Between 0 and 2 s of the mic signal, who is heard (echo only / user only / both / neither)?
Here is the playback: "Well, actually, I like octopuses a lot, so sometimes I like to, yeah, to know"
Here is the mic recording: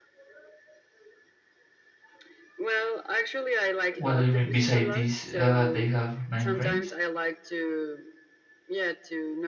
neither